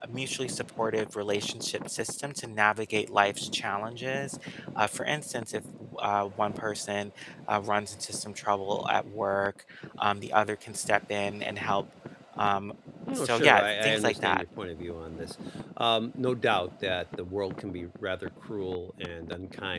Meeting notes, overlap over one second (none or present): present